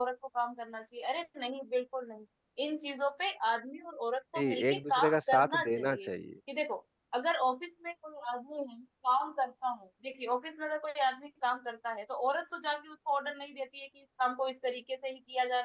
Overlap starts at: 4.3 s

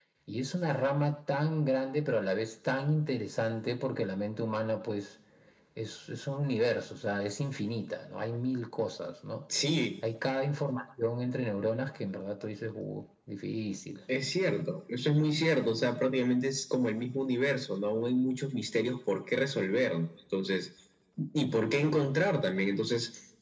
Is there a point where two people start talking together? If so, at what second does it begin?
none

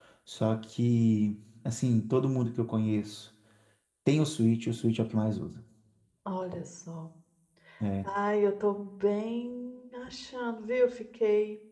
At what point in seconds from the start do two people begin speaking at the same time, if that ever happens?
none

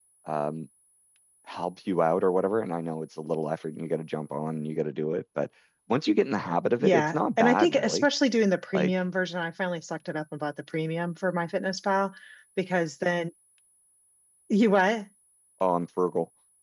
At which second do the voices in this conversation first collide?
6.8 s

